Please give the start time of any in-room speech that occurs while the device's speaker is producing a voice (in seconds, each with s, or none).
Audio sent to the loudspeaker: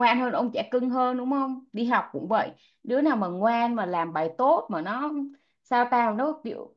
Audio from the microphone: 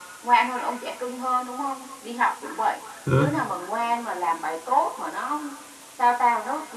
3.0 s